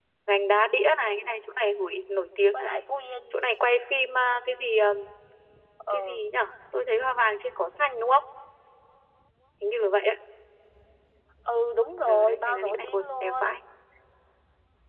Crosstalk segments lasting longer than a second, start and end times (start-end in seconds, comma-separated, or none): 12.1-13.5